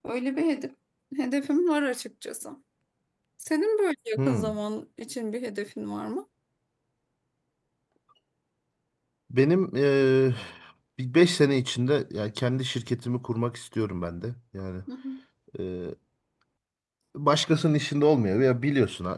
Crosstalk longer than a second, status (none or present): none